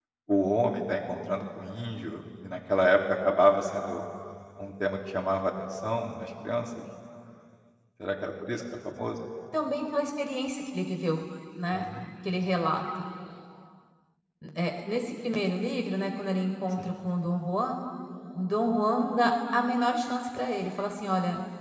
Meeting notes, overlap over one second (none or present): none